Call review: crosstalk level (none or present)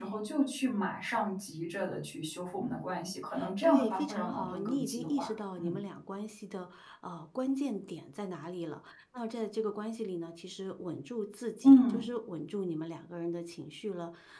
present